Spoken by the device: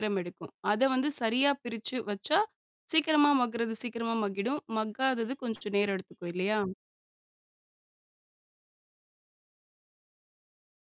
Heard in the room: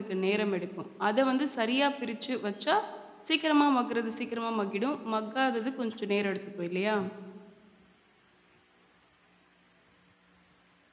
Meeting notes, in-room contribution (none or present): none